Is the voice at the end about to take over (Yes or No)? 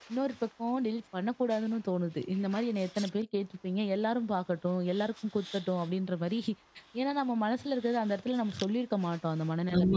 Yes